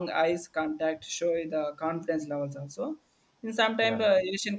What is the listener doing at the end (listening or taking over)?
listening